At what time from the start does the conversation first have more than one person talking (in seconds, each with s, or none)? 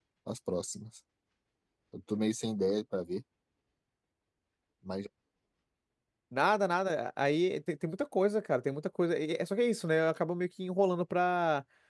none